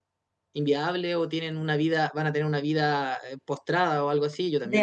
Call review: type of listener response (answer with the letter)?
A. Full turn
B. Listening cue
A